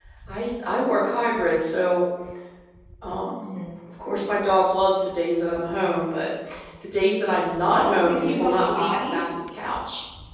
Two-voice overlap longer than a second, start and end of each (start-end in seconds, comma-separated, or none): 7.7-9.2